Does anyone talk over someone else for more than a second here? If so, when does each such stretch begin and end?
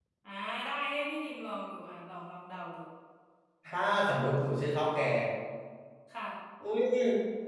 none

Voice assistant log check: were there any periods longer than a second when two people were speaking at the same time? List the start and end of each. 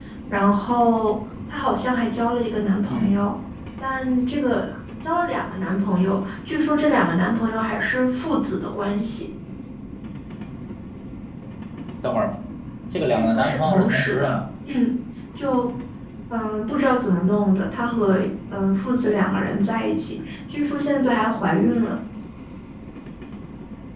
13.1-14.3

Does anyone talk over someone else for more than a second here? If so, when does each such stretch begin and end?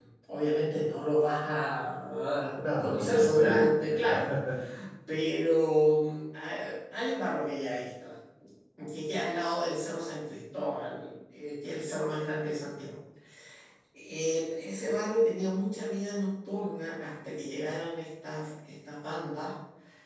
2.8-4.2

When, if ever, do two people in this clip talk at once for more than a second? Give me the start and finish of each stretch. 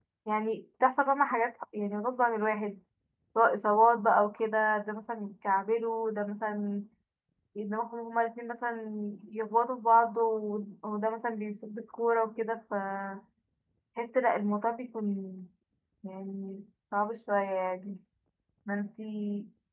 none

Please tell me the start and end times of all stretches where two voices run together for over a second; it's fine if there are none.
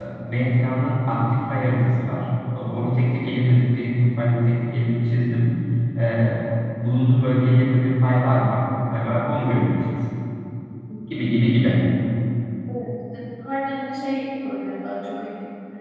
none

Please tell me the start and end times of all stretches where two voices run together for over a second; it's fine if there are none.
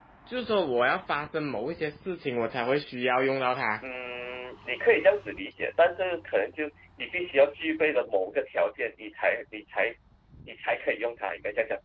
none

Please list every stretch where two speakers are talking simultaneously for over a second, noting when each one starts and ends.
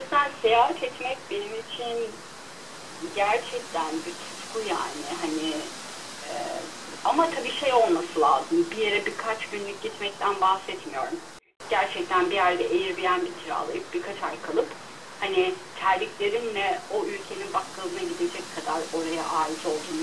none

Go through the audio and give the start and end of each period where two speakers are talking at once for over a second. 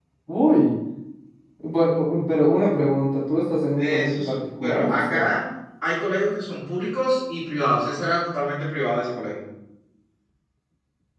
3.8-5.3

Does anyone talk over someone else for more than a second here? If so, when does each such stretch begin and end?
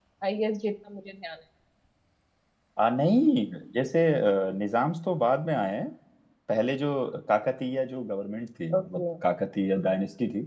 none

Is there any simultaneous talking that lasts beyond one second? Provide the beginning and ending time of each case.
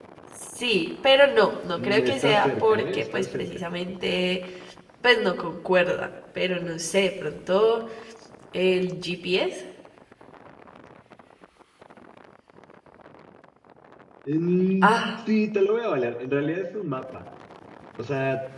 1.8-3.4

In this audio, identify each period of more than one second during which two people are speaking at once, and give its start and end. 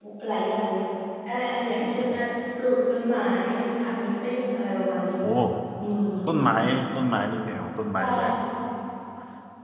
none

